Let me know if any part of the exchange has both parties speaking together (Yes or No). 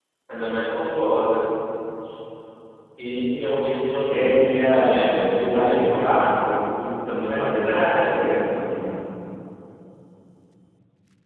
Yes